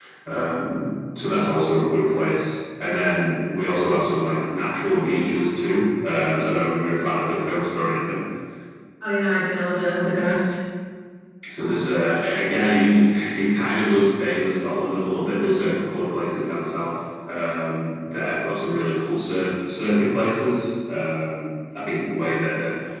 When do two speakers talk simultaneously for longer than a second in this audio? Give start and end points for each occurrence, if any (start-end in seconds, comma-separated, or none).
none